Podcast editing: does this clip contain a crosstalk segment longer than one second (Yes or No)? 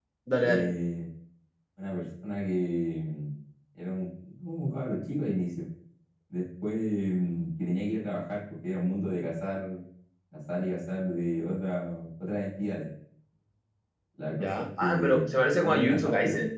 Yes